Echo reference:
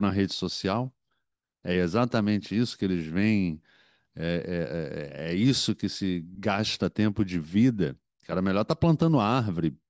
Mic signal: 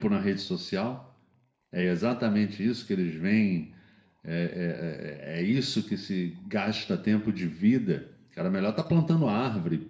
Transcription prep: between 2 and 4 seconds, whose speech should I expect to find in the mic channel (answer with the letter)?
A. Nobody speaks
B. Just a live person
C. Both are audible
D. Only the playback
D